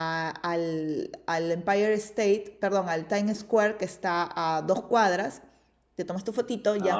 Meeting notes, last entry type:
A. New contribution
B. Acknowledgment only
B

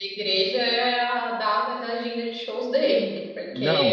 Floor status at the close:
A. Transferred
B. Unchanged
A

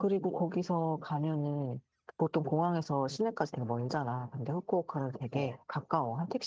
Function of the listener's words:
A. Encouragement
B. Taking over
A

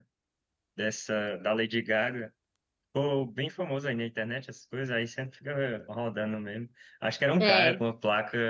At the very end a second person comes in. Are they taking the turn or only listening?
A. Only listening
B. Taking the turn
A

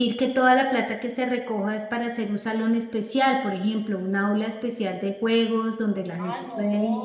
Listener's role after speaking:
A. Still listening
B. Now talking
B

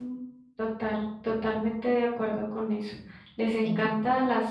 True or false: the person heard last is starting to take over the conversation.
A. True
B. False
B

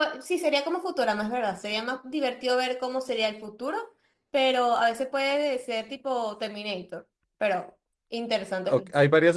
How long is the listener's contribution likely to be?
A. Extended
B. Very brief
A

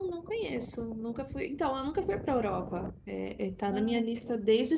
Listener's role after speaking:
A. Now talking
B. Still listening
B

